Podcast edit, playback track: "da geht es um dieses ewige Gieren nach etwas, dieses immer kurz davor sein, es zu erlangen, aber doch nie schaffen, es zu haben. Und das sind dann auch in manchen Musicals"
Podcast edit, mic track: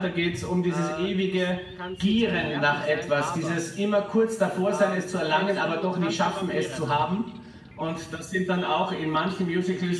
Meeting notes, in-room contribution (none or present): present